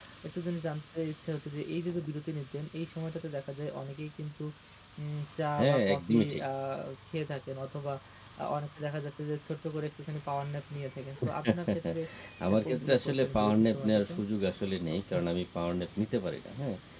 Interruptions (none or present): present